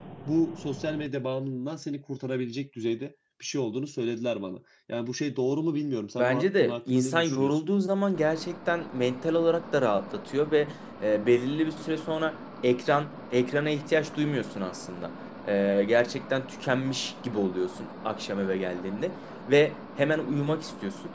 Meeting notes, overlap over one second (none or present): present